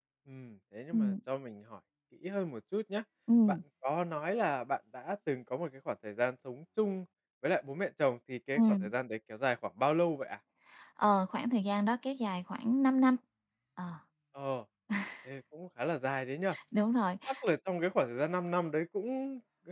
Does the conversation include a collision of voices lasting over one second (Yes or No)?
No